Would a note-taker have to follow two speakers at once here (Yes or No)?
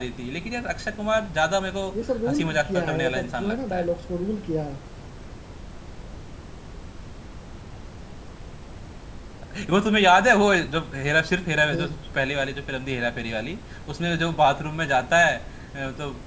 Yes